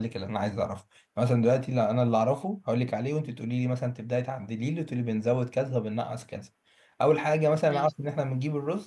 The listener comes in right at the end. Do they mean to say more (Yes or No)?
No